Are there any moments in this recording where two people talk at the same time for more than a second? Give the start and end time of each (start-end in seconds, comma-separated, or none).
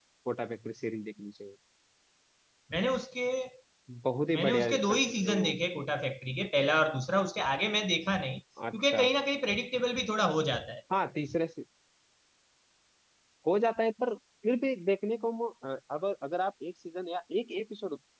4.3-5.5